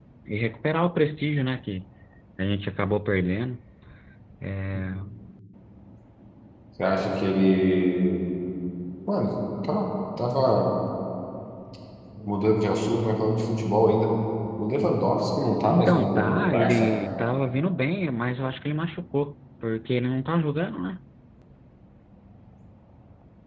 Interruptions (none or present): present